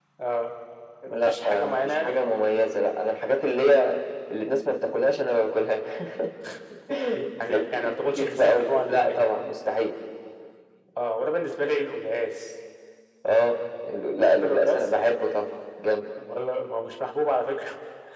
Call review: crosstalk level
present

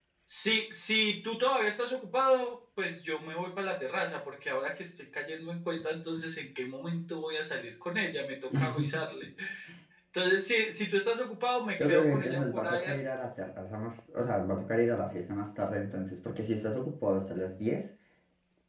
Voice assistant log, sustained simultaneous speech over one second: present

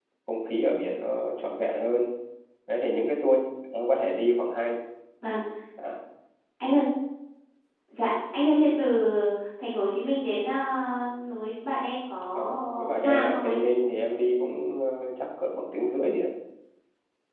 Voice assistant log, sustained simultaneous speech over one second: present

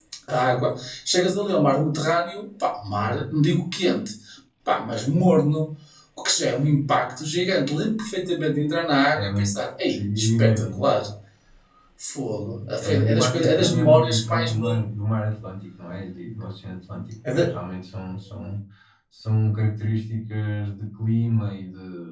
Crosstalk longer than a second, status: present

